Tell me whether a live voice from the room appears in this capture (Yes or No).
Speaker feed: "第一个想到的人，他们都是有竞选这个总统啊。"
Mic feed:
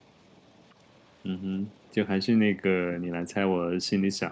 Yes